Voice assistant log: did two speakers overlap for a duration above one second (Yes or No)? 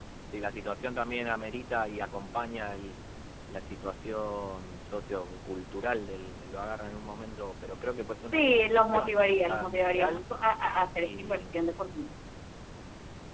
Yes